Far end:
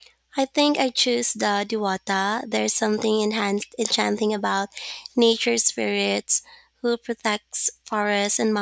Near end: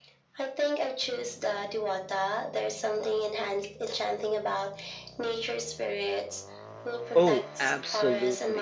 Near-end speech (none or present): present